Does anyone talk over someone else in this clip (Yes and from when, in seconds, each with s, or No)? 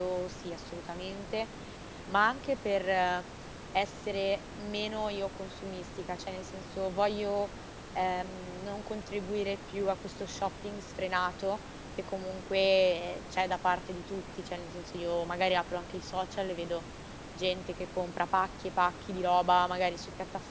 No